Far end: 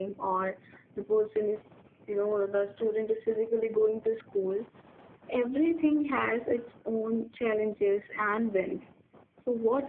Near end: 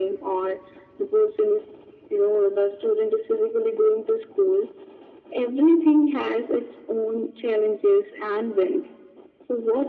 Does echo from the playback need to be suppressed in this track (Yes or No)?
Yes